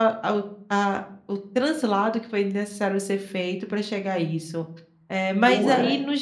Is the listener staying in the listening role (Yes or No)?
Yes